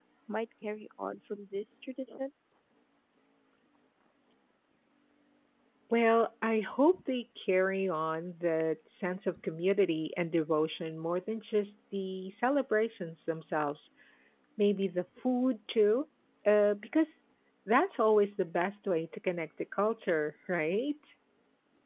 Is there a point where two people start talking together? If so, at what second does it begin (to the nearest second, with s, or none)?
none